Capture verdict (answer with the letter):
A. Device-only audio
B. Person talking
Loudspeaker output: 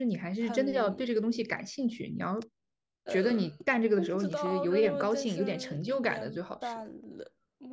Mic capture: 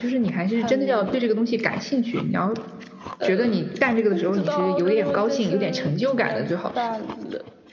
A